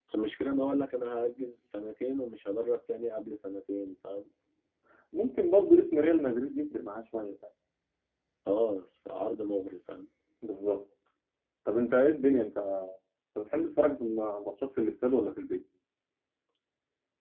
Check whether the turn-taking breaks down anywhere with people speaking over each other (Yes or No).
No